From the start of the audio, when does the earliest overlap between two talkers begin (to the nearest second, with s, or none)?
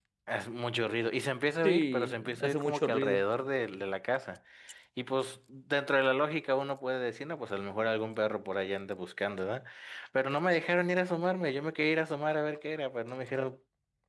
2 s